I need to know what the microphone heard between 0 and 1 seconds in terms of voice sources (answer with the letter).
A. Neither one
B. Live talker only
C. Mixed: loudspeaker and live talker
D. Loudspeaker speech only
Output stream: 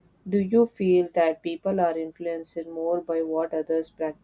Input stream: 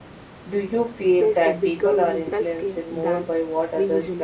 D